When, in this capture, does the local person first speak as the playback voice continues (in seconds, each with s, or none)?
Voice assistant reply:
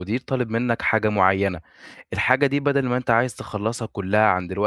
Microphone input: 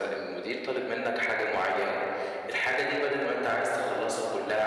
none